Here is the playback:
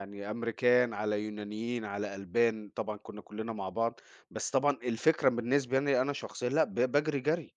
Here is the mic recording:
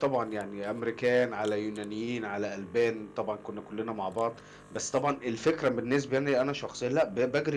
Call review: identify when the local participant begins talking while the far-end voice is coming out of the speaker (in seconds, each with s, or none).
none